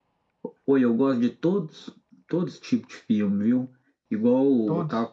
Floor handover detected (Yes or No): No